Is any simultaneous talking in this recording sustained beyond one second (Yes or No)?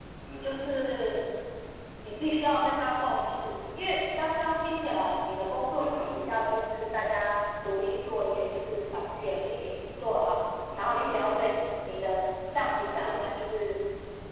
No